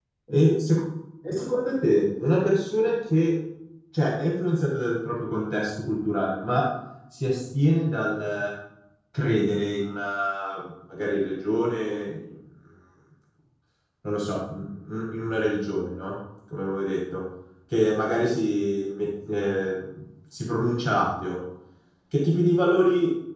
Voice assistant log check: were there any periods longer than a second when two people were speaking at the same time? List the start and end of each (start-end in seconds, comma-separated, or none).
none